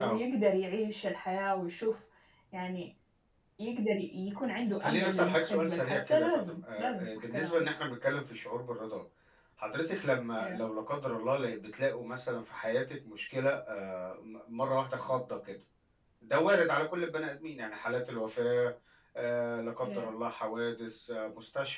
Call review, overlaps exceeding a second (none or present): present